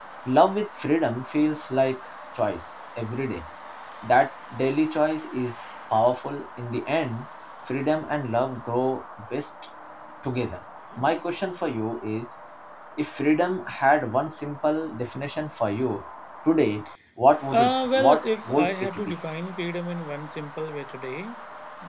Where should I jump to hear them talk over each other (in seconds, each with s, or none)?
17.5 s